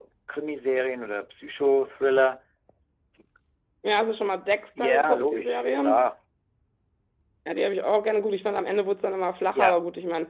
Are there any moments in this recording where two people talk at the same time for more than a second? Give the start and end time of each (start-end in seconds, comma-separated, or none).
4.8-6.0